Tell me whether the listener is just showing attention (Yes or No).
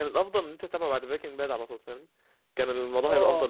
No